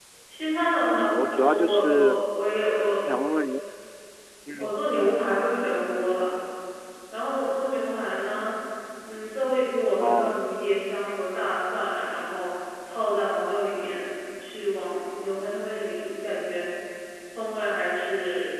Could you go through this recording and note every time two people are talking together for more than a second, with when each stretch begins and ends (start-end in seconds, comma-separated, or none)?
0.9-2.2